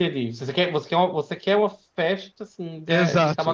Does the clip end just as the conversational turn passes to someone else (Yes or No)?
Yes